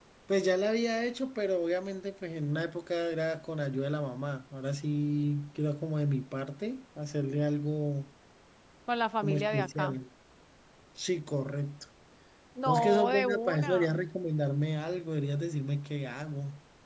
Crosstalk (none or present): present